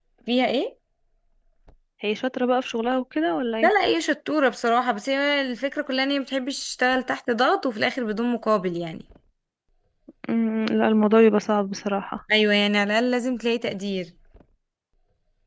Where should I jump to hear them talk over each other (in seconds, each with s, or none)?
none